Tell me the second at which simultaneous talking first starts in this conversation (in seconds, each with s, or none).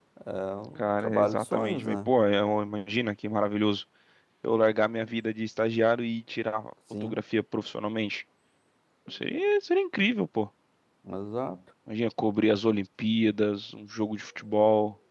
0.8 s